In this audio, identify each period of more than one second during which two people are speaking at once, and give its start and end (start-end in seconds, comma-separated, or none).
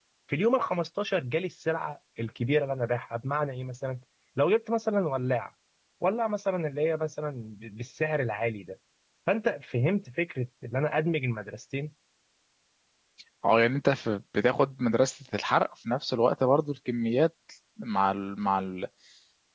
none